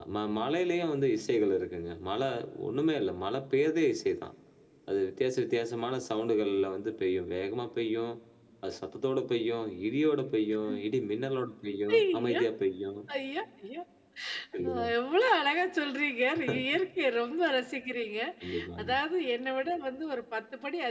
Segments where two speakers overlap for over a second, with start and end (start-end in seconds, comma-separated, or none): none